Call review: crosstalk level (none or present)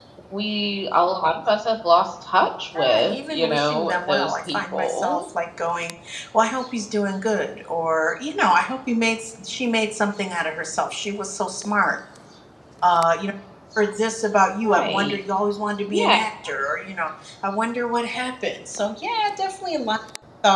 present